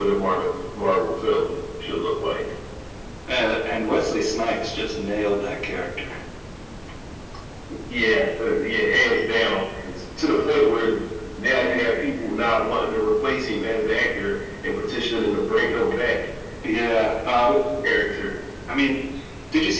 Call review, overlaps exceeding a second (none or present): none